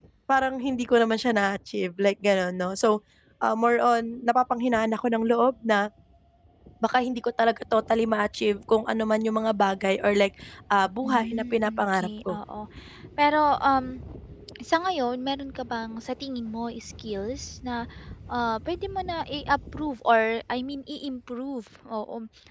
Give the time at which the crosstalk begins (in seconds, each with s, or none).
11.0 s